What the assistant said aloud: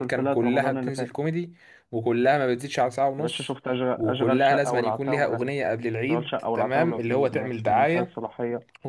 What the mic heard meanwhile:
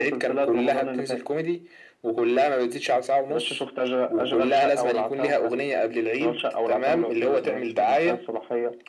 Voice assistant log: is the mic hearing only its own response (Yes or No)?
Yes